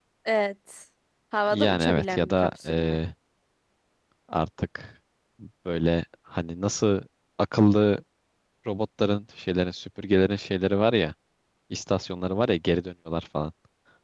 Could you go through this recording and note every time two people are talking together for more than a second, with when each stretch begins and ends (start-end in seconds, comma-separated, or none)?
1.5-3.0